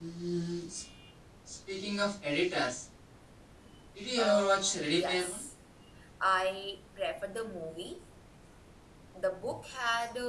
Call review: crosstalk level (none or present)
present